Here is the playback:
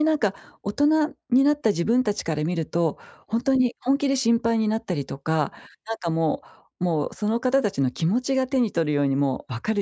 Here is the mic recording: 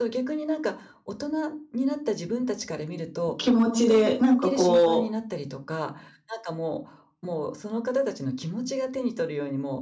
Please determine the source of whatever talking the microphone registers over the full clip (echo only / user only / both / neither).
both